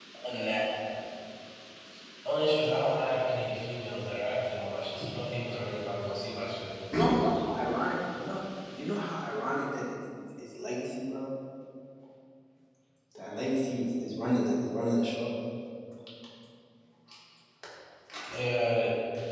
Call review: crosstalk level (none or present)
none